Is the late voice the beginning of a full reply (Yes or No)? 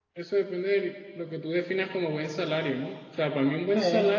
No